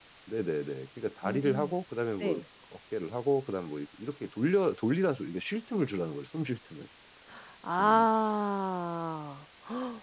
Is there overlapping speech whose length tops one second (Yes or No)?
No